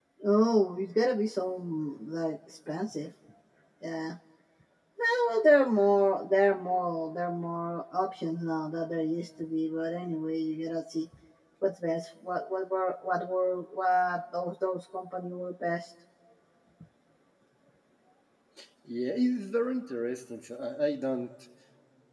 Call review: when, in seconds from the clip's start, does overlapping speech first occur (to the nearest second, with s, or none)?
none